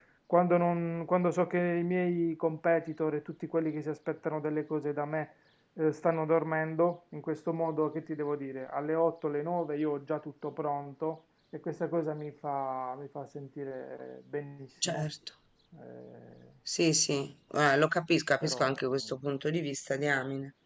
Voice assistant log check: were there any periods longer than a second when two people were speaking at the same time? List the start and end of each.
none

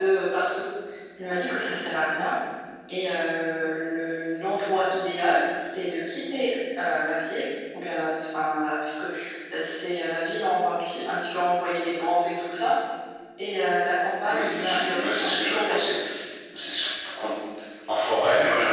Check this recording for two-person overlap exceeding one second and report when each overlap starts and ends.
14.3-15.8

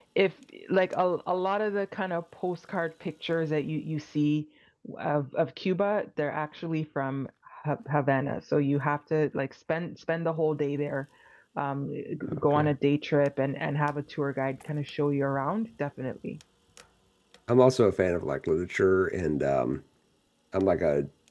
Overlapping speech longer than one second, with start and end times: none

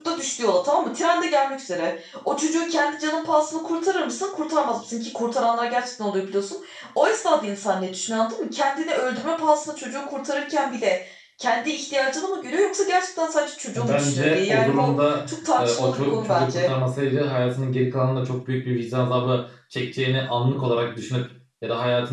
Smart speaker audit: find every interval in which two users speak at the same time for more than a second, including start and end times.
13.8-16.7

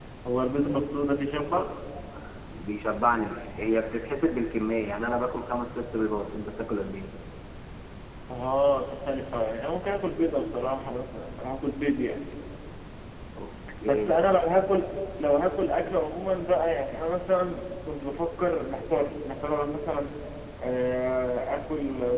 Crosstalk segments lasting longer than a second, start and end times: none

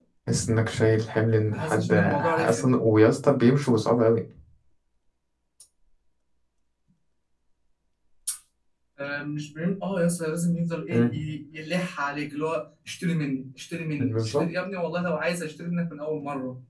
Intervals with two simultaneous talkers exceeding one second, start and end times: 1.5-2.7

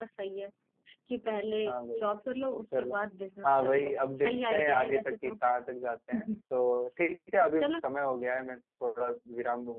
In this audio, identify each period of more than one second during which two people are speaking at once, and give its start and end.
3.5-5.3

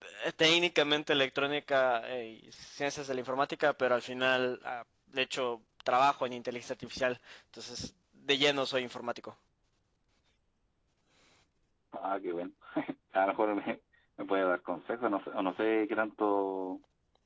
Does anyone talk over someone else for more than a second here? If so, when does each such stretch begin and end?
none

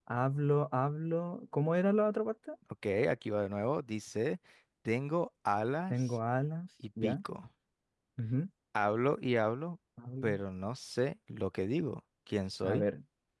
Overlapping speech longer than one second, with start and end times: none

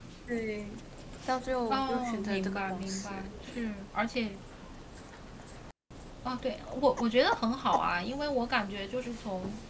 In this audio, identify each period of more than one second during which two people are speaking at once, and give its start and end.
1.7-3.6

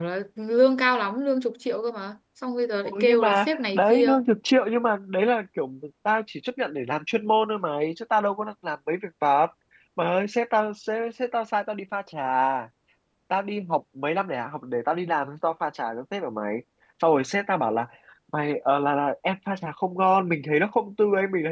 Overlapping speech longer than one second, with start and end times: 2.8-4.1

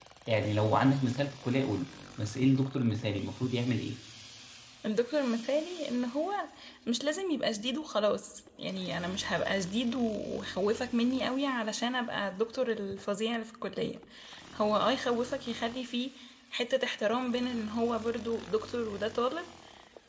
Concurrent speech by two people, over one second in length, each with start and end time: none

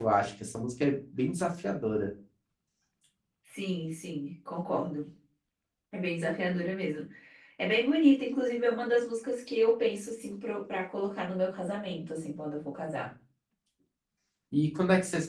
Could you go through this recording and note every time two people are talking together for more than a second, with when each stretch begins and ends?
none

